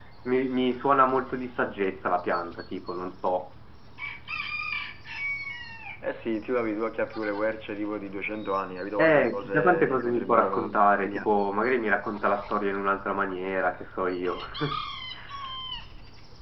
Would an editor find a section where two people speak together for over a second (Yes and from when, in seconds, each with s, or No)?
Yes, from 9.0 s